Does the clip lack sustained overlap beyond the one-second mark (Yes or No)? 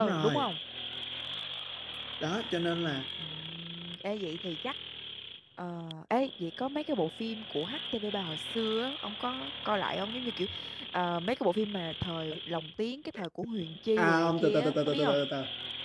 No